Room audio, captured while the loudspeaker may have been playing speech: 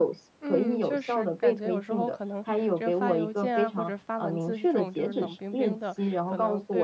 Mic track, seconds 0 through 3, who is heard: both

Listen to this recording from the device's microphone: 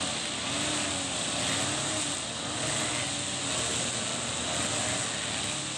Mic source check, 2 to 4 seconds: neither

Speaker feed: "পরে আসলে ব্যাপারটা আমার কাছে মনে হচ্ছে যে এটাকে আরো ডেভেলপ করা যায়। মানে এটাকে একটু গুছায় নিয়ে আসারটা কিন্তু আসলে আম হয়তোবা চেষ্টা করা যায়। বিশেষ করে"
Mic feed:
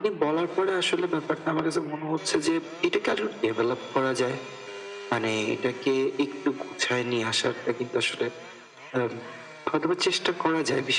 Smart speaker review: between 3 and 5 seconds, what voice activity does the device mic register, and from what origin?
echo only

